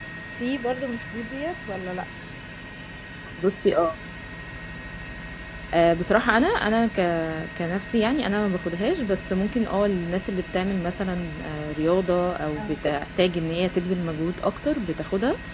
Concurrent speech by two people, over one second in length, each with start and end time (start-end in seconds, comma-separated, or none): none